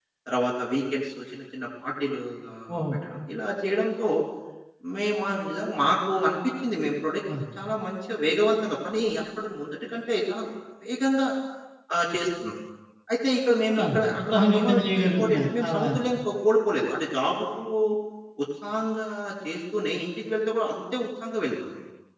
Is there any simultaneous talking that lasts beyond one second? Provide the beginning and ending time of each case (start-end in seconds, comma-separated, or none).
14.3-15.8